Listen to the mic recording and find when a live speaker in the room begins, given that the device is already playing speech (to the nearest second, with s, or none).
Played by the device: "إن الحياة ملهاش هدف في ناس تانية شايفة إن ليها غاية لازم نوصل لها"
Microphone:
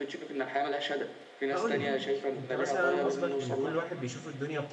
2 s